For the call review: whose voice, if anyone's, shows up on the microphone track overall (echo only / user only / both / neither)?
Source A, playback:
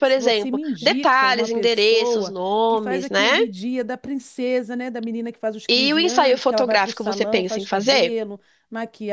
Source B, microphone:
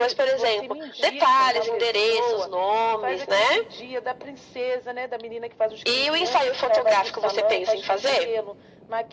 echo only